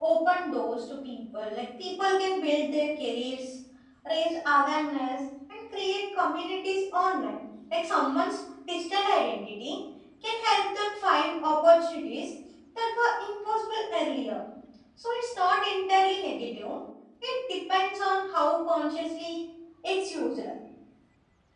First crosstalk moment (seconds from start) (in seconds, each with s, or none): none